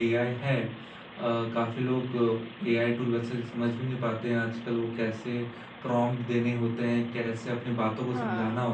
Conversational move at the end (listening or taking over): listening